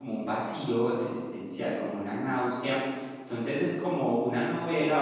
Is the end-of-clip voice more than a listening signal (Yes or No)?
Yes